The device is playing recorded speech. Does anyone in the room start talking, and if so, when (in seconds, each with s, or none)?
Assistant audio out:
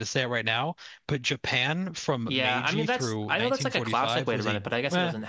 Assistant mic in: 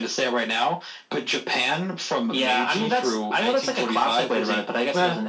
none